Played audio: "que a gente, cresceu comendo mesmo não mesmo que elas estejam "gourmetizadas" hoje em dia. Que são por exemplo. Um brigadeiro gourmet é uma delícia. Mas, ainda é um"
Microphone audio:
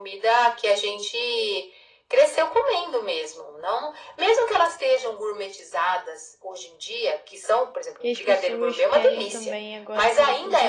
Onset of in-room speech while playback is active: 8.0 s

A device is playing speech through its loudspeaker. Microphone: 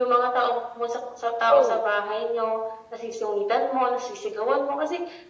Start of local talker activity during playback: 1.5 s

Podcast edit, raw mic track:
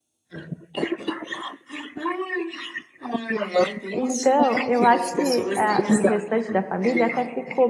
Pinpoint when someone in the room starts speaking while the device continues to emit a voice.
4.0 s

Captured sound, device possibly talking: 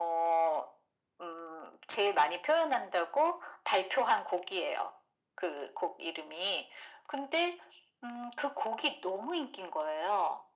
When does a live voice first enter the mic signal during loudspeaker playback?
none

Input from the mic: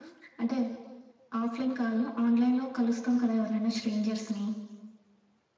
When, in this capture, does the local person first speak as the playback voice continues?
none

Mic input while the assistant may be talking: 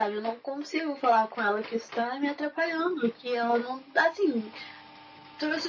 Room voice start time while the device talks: none

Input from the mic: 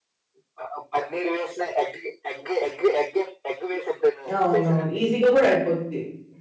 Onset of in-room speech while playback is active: 4.3 s

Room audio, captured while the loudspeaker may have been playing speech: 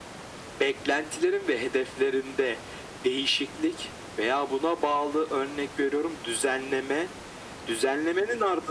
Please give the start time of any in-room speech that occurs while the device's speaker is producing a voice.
none

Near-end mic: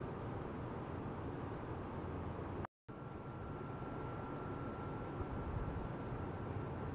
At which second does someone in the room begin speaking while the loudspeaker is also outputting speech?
none

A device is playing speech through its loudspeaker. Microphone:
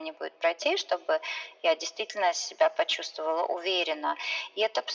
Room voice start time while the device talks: none

